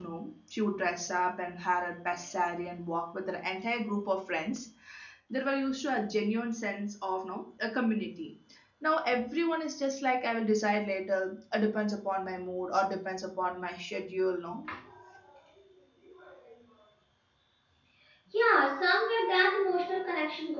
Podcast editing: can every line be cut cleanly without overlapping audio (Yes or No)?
Yes